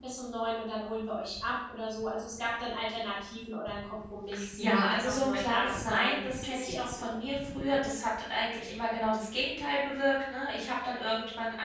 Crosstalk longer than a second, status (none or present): present